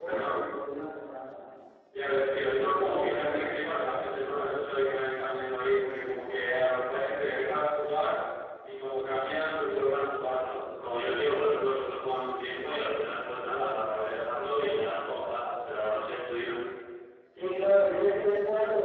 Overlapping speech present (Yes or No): Yes